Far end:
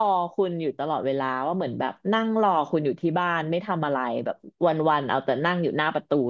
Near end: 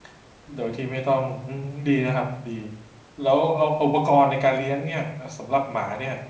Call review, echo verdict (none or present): none